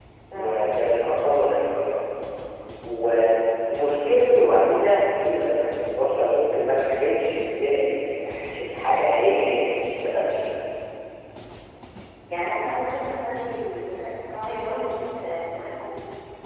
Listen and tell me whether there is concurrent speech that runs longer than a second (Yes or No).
No